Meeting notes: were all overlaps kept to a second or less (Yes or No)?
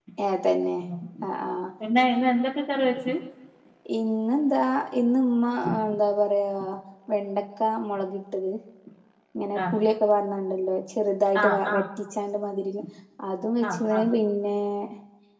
Yes